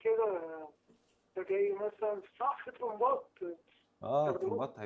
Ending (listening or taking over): taking over